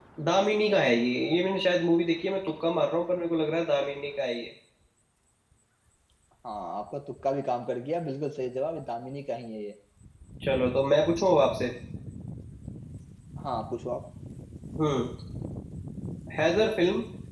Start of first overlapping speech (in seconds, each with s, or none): none